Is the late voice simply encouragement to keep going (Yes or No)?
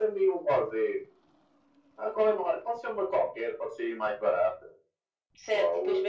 No